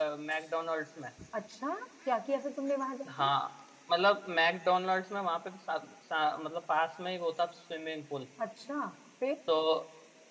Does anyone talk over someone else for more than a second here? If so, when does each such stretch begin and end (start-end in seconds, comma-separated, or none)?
none